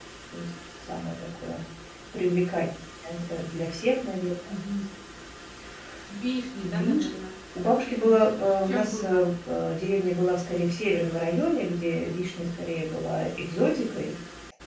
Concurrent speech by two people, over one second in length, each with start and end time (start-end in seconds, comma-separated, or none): 7.9-9.3